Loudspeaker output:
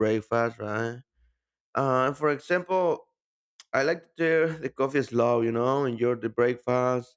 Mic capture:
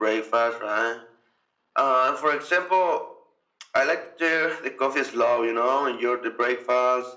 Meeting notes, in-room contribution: none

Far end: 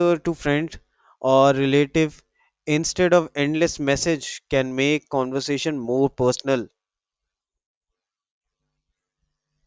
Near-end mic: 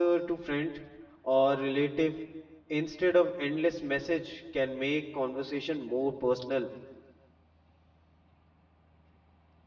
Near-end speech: none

